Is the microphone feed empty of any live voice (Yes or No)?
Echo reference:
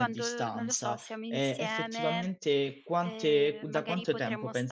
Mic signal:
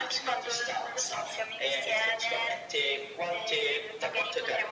Yes